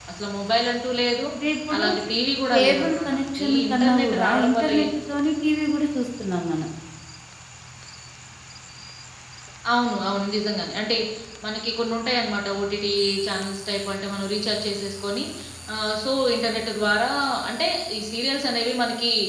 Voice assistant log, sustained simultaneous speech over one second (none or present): present